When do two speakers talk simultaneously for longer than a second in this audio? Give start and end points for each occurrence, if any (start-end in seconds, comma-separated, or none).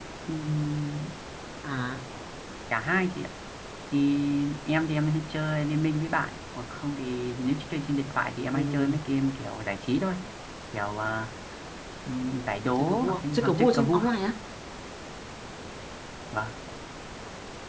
12.8-14.0